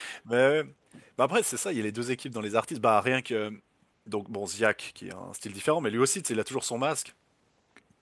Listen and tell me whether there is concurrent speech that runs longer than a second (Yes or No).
No